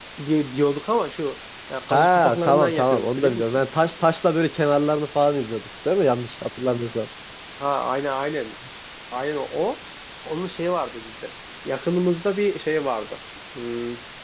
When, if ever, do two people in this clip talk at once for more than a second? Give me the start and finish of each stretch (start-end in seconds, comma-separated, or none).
1.9-3.6